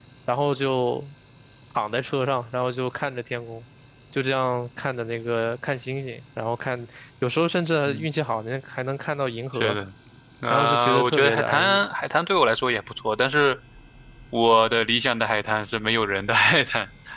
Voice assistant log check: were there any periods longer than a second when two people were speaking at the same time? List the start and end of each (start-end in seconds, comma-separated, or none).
10.5-11.8